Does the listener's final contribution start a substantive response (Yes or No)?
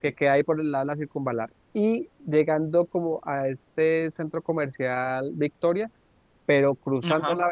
No